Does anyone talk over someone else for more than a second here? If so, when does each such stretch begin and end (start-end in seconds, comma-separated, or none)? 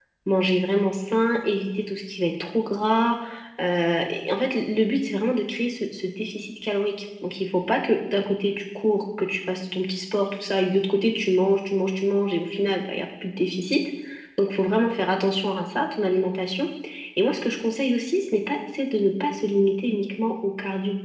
none